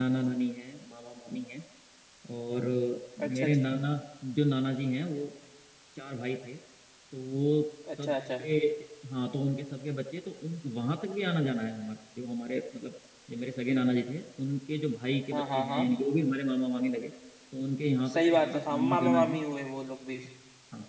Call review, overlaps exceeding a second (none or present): present